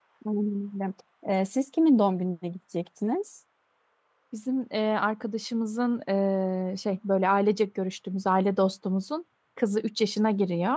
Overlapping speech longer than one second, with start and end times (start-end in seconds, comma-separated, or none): none